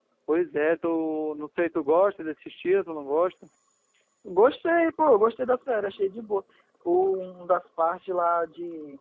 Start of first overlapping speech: none

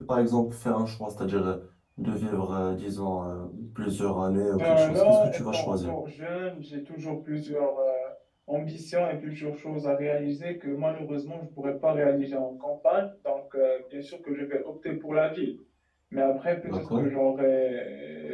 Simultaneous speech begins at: 4.6 s

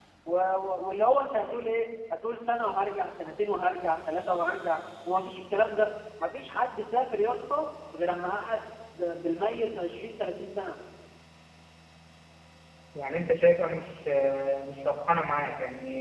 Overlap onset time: none

